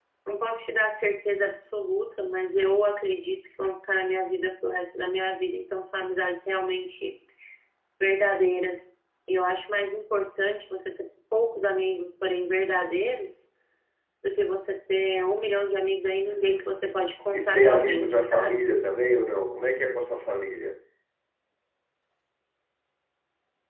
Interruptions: present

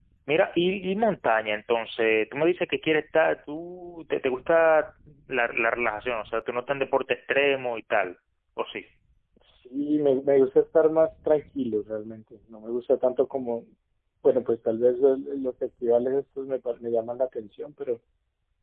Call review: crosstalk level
none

